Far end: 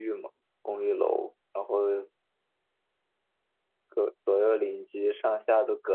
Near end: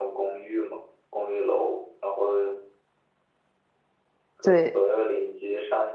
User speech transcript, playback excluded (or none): 对，